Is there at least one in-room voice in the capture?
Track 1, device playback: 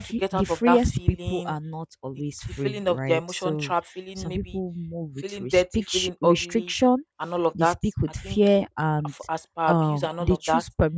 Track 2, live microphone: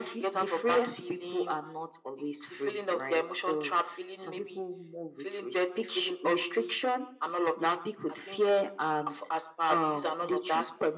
No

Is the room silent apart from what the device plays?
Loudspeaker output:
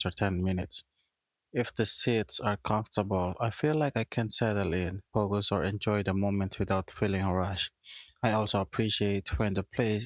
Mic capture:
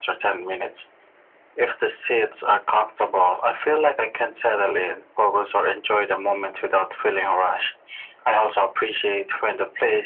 Yes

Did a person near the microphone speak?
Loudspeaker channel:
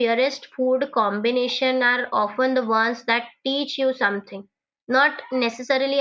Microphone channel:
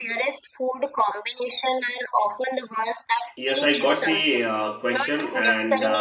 Yes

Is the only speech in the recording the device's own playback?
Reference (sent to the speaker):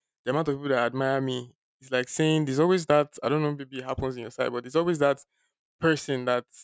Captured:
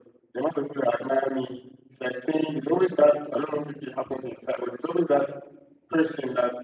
Yes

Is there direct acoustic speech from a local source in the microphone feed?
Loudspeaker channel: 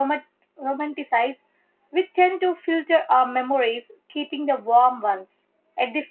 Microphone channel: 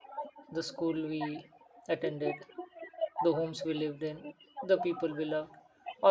Yes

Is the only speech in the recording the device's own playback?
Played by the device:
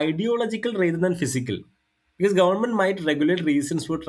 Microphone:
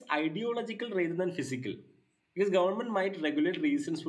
Yes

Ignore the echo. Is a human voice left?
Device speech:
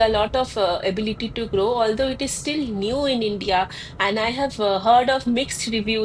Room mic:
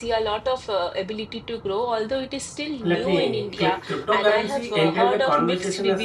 Yes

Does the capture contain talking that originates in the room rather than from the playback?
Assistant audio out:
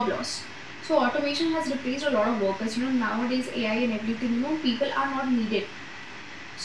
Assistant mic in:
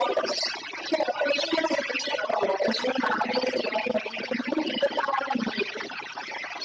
No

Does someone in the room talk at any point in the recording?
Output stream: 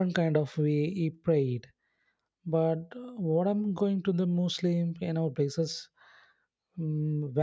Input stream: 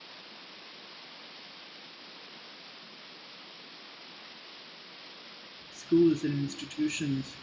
Yes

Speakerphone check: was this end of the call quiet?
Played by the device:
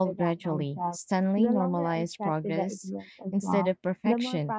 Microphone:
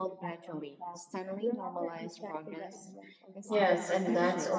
No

